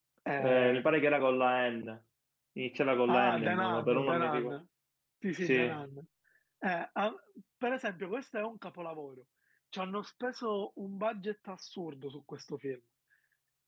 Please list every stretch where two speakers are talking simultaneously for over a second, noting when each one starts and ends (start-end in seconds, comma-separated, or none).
3.1-4.5